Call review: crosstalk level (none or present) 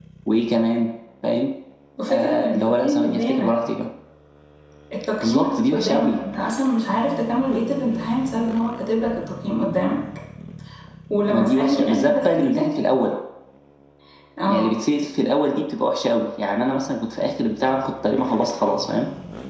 present